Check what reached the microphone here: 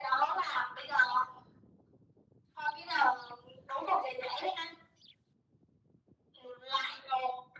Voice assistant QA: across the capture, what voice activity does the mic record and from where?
echo only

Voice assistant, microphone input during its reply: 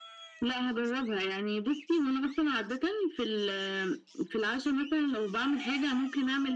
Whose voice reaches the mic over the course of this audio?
echo only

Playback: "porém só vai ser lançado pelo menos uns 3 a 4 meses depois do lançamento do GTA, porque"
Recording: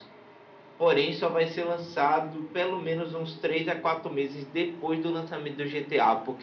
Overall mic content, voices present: echo only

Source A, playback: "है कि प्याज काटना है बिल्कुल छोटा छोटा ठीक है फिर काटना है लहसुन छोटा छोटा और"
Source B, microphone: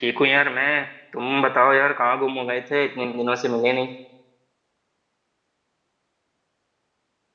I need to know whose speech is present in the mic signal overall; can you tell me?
user only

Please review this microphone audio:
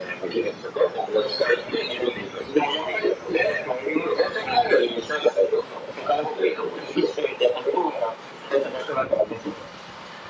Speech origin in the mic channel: echo only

